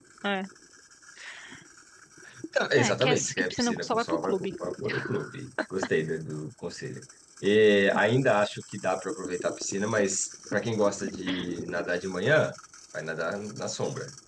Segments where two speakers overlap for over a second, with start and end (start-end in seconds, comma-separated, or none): 2.8-4.5